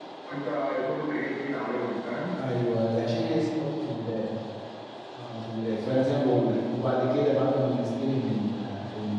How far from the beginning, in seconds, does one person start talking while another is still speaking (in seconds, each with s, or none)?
none